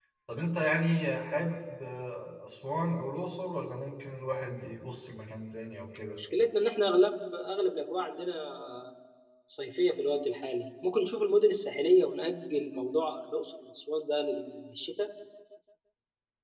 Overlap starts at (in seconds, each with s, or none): none